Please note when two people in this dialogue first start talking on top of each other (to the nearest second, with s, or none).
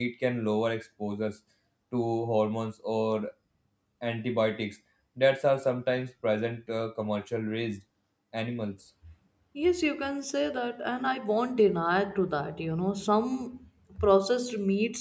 none